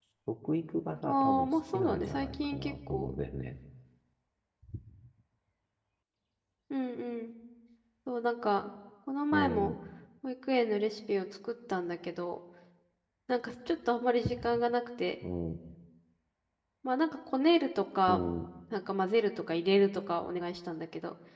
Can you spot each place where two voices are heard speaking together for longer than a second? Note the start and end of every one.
1.0-3.2

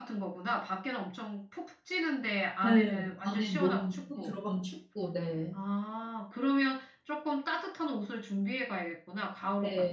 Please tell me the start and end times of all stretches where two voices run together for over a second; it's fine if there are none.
2.6-4.4

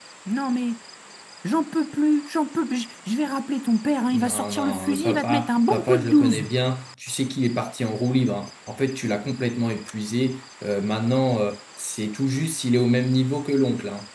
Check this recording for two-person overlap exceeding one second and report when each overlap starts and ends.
4.1-6.5

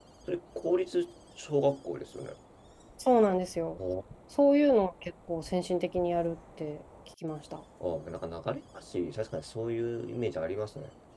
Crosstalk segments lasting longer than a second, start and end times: none

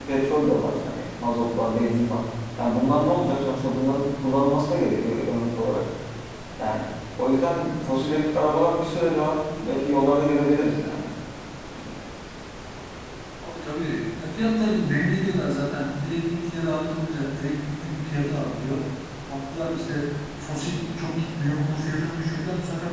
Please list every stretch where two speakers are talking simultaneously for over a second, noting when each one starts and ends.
none

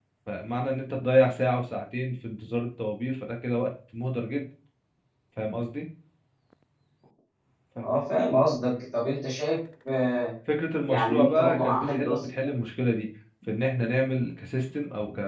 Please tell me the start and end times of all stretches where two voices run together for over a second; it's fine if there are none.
10.9-12.5

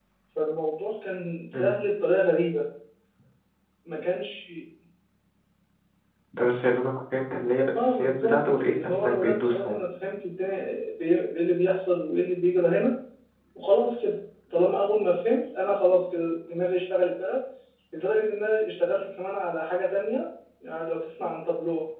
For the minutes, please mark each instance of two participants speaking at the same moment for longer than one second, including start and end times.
7.8-9.8

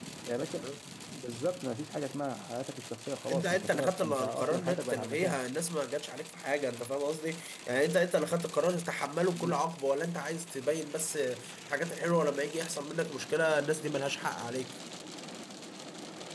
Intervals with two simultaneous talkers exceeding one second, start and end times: 3.3-5.4

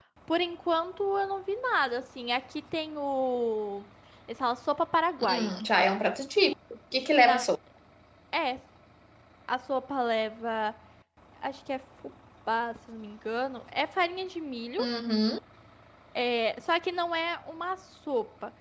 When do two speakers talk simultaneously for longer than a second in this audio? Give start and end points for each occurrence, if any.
none

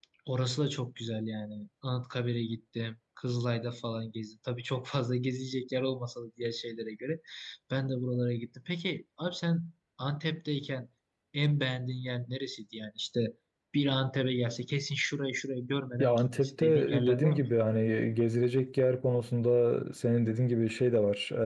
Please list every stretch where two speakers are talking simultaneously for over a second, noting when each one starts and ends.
16.0-17.4

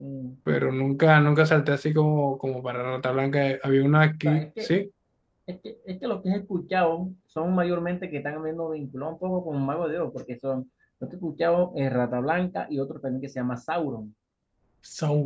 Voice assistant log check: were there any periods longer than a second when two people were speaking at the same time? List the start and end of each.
none

